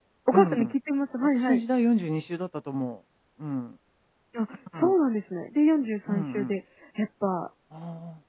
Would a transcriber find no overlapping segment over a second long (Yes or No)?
Yes